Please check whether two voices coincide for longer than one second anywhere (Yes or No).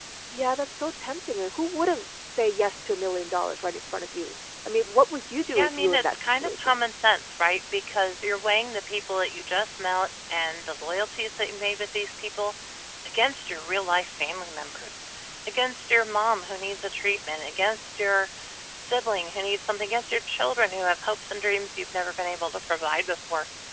Yes